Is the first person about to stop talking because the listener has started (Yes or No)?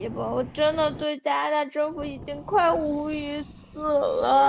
Yes